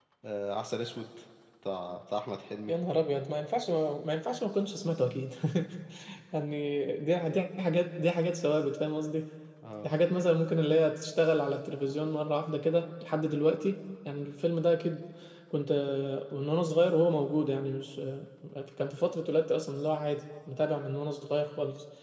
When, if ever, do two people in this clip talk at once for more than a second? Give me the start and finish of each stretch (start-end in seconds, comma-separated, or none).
none